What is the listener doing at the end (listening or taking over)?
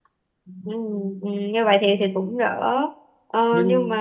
listening